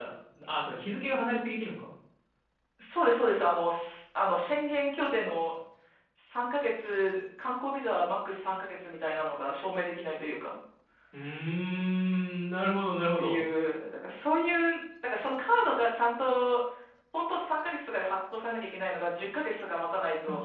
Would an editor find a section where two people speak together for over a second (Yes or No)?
No